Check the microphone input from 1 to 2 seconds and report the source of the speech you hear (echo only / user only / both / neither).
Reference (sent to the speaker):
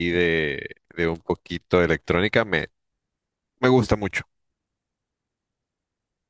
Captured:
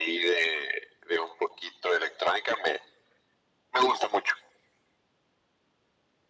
echo only